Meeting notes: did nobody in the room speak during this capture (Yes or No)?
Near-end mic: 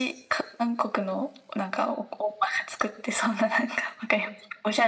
Yes